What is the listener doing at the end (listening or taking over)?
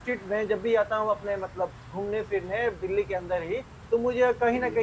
listening